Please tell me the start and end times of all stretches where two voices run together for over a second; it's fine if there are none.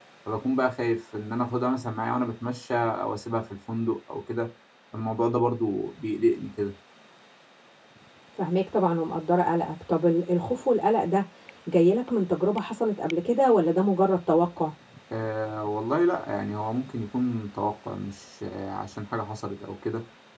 none

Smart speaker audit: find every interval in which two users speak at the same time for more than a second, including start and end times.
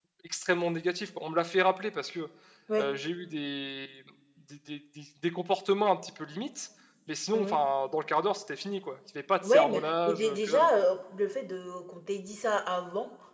9.4-10.7

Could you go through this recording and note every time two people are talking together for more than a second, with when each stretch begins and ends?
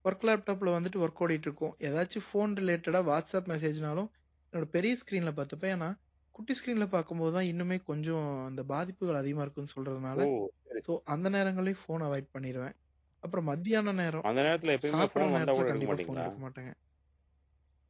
14.9-16.3

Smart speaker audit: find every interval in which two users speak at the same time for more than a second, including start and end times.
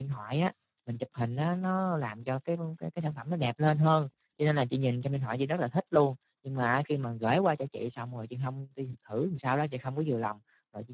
none

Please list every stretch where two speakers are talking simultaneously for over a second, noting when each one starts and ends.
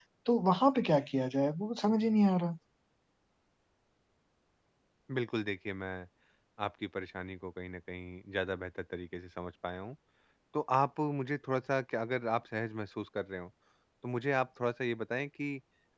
none

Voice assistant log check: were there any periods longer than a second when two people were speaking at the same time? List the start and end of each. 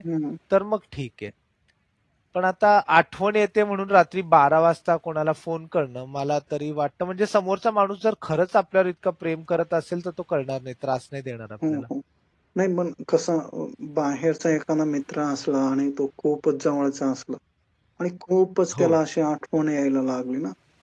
none

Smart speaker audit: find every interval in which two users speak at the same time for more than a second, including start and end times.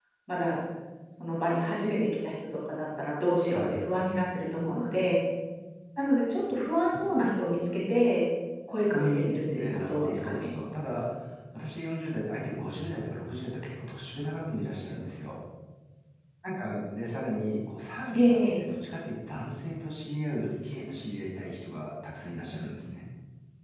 8.8-10.5

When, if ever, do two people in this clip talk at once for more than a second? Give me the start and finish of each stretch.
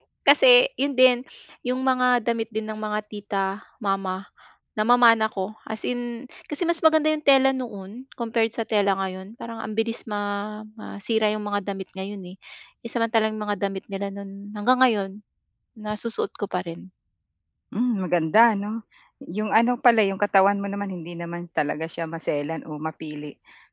none

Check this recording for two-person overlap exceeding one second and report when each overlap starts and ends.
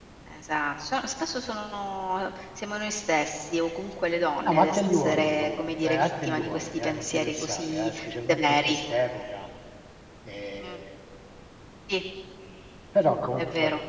4.4-7.9

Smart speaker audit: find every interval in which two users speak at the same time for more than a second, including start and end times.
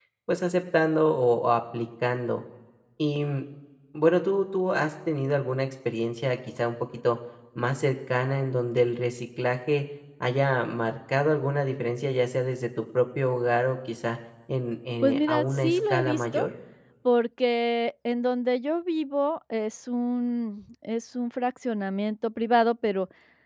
15.0-16.4

